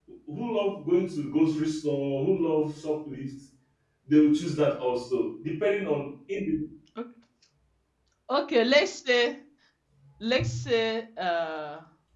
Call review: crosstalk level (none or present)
none